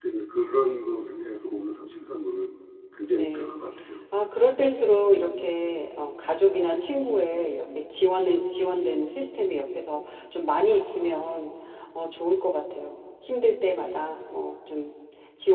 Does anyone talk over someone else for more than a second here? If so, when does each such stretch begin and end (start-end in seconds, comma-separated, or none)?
none